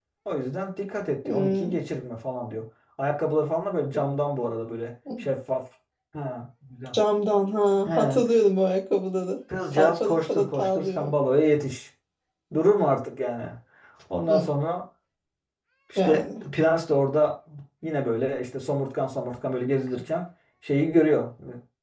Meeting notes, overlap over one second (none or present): present